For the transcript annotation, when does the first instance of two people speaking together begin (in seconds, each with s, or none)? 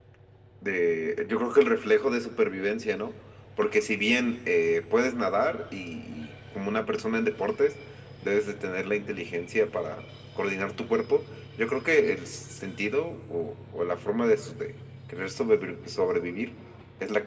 none